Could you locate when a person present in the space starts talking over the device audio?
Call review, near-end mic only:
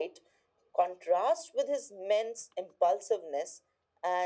none

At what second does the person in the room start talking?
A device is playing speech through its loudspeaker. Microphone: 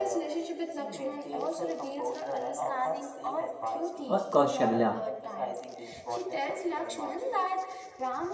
4 s

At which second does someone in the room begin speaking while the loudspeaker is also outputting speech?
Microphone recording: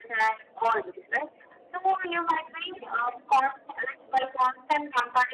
none

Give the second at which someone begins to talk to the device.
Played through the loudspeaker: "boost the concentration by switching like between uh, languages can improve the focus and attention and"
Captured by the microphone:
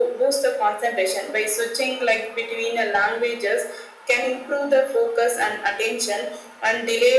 none

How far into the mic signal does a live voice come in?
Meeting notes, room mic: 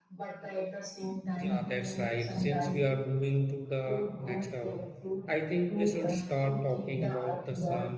1 s

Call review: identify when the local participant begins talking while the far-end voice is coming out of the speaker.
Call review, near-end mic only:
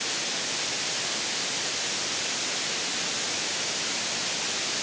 none

